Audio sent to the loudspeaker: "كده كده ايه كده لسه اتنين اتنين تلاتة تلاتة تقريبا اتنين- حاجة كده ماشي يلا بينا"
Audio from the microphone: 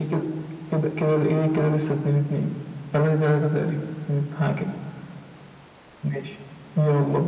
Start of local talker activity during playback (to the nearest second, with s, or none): none